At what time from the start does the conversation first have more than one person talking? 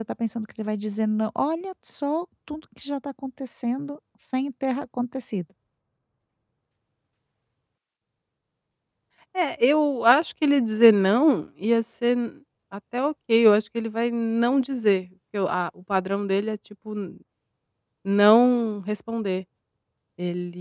none

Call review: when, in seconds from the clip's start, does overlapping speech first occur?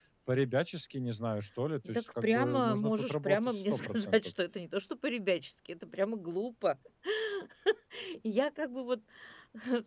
1.8 s

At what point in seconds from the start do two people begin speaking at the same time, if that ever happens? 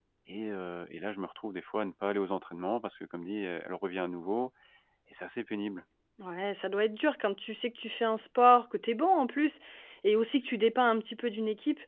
none

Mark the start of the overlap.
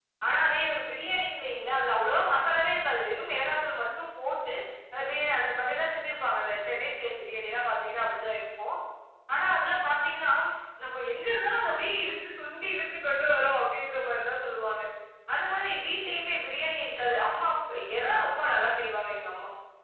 none

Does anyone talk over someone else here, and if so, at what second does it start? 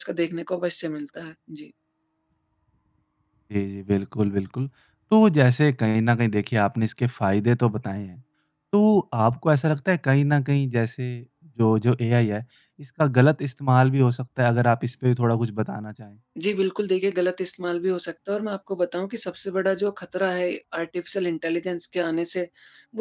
none

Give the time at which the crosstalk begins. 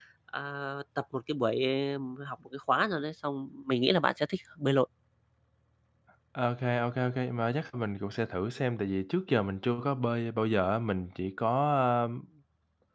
none

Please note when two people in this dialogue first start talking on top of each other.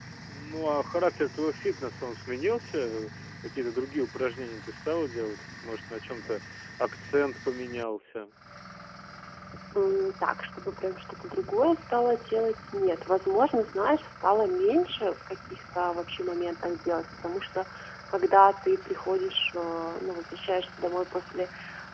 none

